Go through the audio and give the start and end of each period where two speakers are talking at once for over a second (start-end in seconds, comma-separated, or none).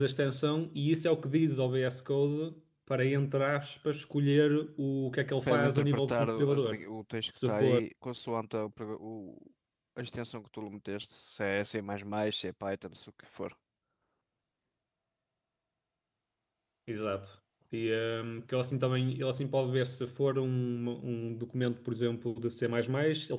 5.4-6.8